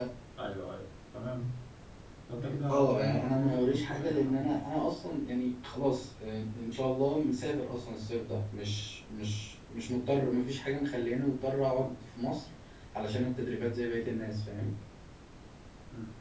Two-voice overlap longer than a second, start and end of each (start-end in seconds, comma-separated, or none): 2.7-4.6